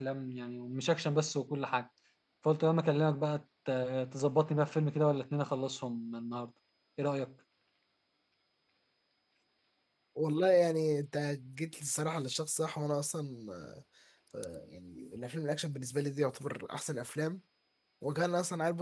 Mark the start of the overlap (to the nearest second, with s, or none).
none